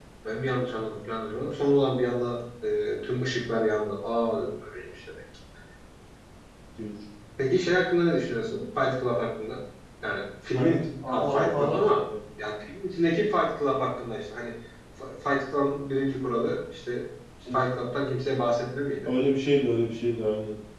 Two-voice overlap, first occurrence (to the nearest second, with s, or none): 11 s